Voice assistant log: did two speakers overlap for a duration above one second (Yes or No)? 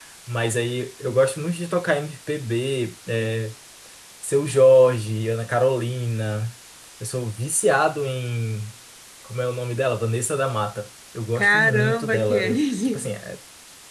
Yes